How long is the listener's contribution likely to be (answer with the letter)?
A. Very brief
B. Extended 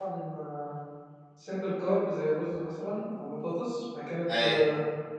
A